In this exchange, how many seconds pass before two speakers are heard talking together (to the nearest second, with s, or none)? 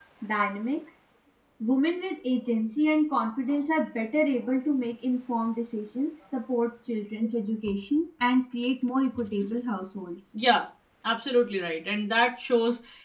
none